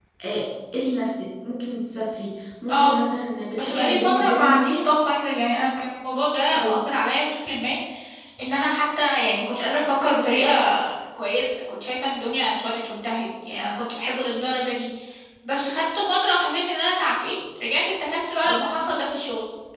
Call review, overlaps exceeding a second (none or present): present